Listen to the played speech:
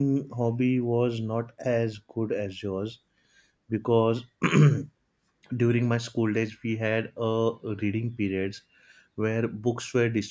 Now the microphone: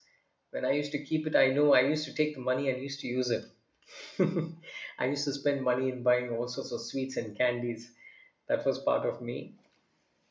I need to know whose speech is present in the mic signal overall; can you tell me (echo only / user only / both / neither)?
user only